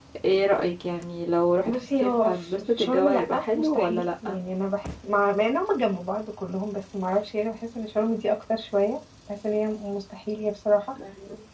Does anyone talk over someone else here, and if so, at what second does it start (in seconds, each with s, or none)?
1.6 s